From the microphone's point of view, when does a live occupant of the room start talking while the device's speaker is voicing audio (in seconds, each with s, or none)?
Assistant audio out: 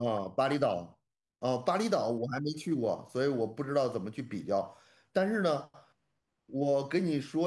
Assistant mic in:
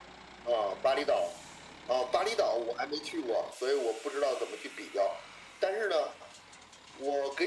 none